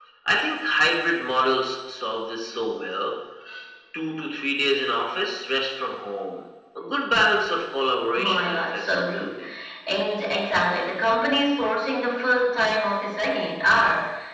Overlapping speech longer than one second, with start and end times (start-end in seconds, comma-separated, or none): 8.1-9.4